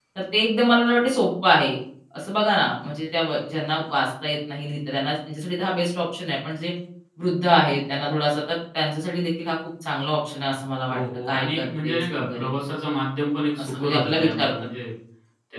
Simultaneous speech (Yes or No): Yes